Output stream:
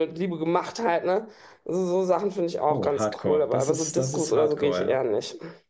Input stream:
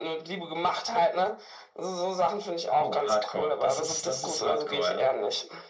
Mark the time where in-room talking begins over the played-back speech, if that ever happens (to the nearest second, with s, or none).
none